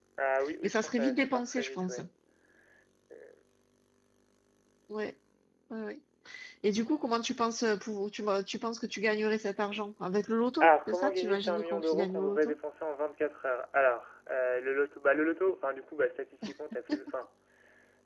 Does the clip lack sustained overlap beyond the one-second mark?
No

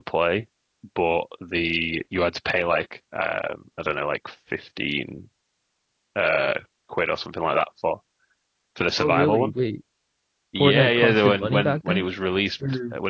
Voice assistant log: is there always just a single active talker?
No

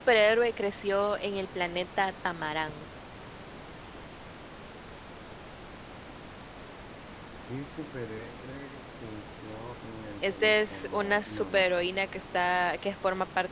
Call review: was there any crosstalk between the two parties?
Yes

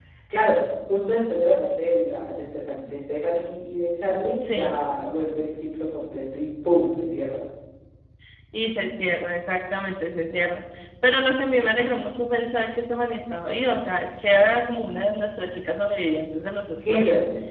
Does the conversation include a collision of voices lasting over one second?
No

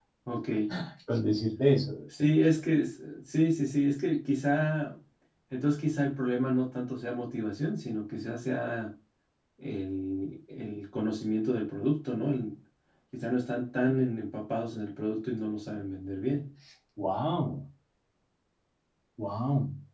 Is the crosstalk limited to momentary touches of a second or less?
Yes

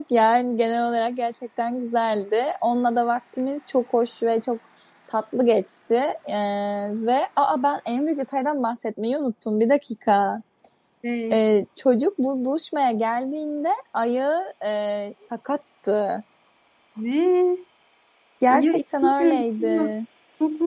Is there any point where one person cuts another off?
Yes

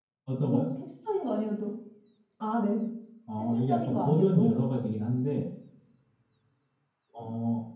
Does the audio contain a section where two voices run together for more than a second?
Yes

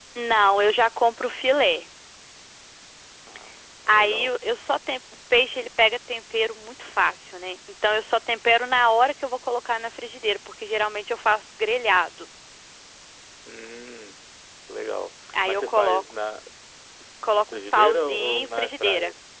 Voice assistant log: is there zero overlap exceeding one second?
No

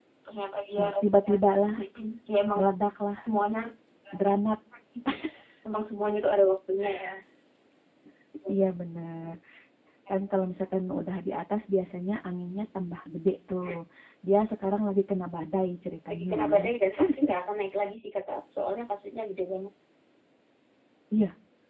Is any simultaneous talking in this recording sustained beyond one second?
No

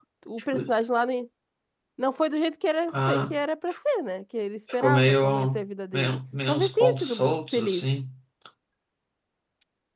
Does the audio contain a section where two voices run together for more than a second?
Yes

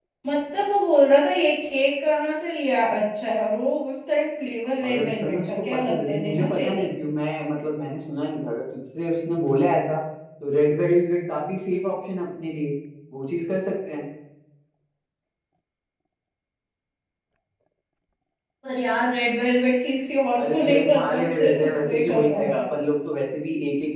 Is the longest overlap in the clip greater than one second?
Yes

